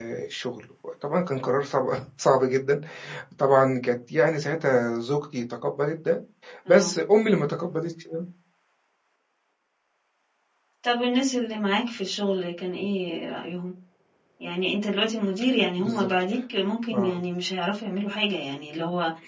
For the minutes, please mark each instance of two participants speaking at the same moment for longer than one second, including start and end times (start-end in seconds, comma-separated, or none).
none